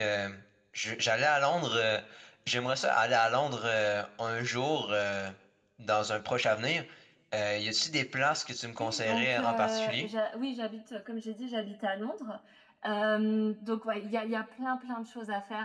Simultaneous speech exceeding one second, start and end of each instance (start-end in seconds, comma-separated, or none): 8.8-10.1